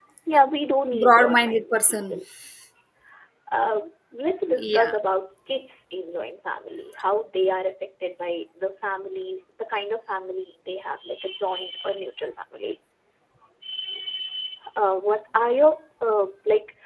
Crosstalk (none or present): present